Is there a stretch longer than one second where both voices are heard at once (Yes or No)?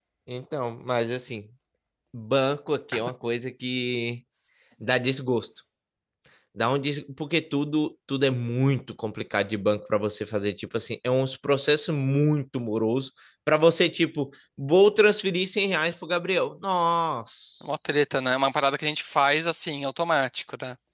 No